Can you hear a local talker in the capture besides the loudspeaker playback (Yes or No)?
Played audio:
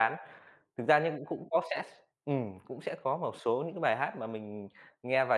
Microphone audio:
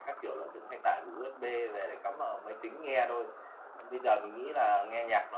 Yes